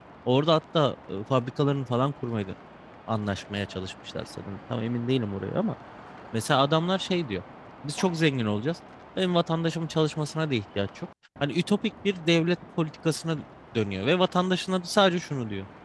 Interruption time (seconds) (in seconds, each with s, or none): none